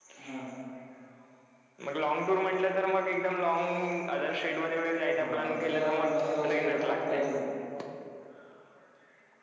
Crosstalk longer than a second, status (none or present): present